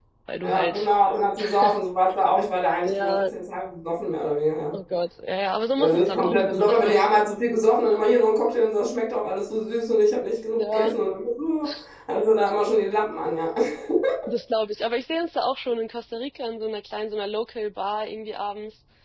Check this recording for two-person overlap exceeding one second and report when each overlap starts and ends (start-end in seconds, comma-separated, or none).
5.8-7.0